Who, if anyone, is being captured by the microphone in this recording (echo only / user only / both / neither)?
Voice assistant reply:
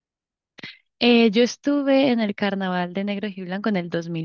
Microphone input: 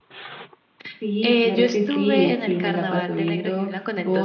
both